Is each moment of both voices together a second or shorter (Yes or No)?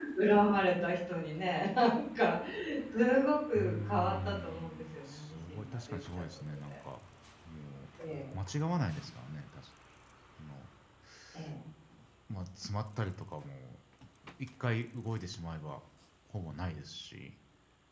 No